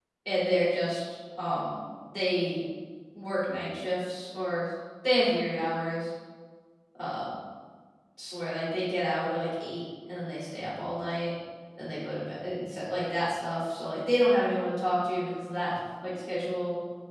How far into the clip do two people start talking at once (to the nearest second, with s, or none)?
none